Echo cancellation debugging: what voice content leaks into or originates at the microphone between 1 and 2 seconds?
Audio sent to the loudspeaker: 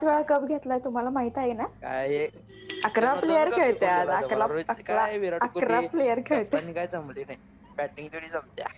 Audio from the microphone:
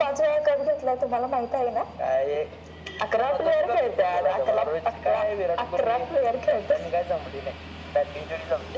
echo only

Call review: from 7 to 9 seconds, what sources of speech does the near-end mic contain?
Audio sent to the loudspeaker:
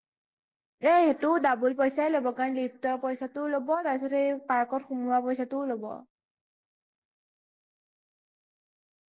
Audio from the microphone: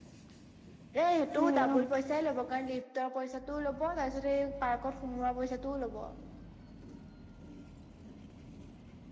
neither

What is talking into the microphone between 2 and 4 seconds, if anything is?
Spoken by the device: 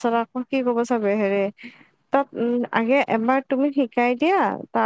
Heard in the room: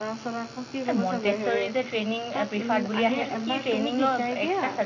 both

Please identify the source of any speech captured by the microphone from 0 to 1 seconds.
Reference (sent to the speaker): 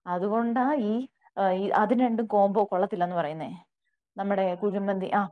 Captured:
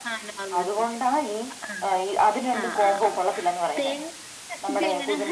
both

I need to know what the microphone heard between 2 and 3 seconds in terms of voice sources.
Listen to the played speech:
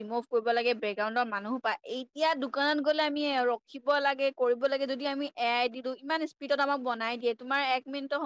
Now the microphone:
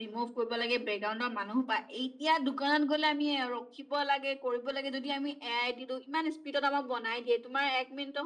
echo only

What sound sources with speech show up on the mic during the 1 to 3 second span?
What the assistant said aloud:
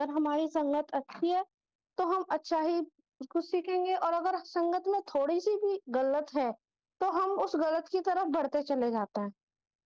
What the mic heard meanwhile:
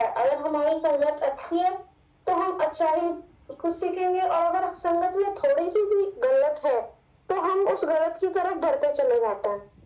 echo only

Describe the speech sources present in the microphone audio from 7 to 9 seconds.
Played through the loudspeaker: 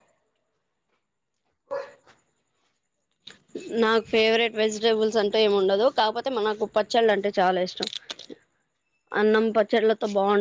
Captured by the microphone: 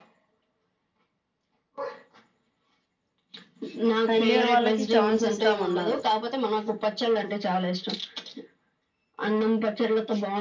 echo only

